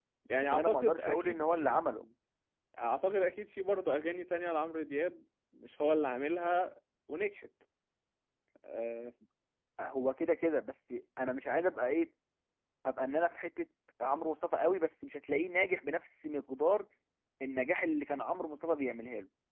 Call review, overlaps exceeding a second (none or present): present